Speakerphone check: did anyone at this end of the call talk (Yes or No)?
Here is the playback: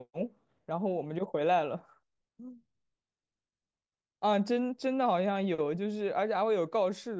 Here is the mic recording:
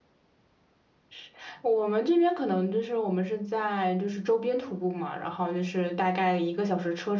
Yes